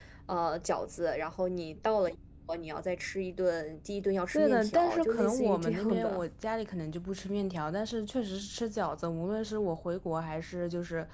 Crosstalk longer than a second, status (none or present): present